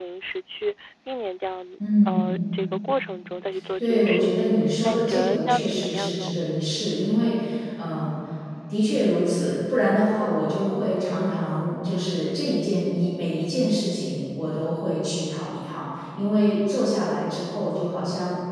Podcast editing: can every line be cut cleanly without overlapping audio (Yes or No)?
No